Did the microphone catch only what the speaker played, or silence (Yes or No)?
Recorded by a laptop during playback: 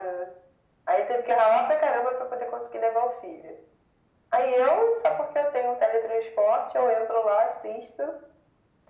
Yes